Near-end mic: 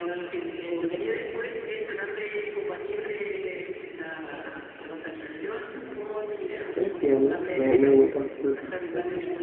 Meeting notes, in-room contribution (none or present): present